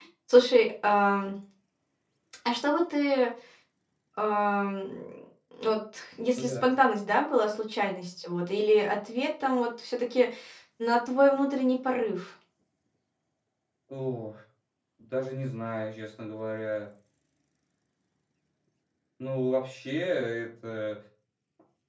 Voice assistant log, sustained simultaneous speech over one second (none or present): none